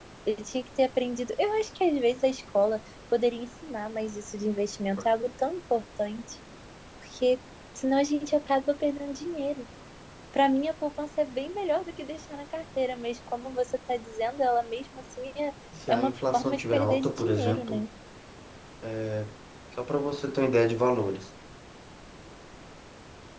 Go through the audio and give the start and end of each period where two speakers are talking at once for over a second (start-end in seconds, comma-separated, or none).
15.9-17.8